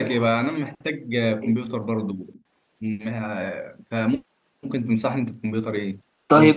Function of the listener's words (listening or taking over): taking over